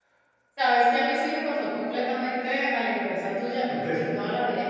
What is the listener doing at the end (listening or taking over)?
listening